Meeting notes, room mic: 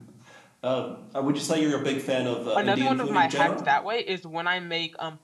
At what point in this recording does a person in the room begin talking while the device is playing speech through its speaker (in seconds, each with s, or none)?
2.6 s